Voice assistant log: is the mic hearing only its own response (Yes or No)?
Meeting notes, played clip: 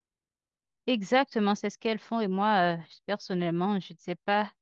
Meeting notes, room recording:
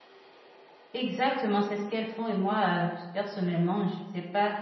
Yes